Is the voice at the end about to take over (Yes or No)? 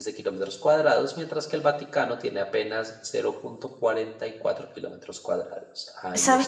Yes